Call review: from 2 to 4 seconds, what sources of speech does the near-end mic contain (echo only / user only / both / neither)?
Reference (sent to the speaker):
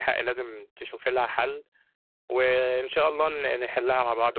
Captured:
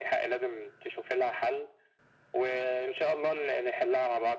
echo only